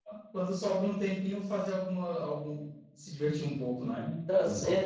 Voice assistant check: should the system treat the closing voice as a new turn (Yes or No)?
Yes